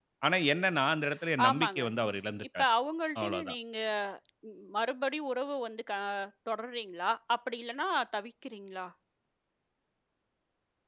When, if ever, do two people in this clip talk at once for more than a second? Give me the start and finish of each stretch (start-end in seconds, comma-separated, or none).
none